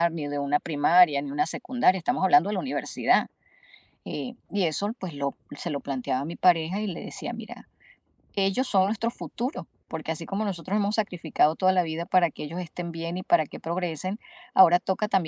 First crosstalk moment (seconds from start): none

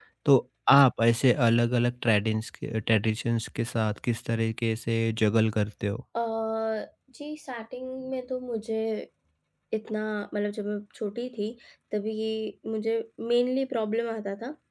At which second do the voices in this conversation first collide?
none

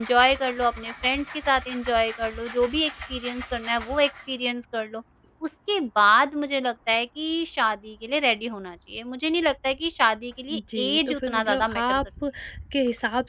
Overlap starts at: 10.5 s

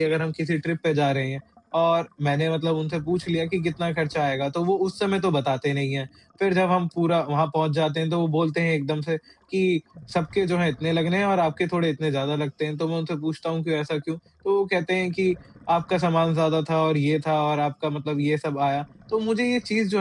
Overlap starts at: none

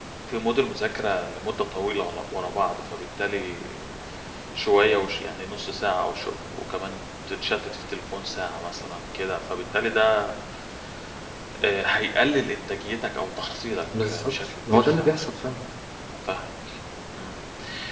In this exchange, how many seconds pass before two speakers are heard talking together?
13.9 s

